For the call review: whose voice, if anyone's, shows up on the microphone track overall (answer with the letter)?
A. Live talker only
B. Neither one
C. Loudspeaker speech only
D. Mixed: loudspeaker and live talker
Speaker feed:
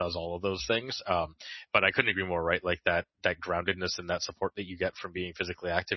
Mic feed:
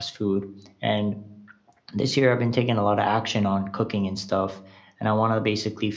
A